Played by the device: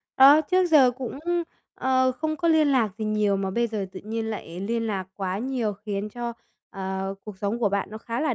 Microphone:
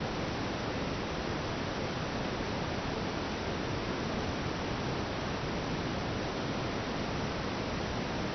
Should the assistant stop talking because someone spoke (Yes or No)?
No